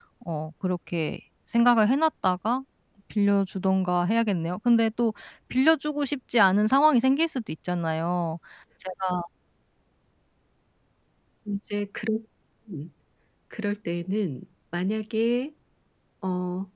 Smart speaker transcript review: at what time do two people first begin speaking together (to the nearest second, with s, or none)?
none